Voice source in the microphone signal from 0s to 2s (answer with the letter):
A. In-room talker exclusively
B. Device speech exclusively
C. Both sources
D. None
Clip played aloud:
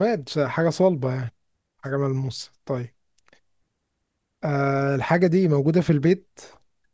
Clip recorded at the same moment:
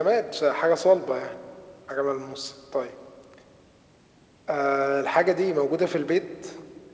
B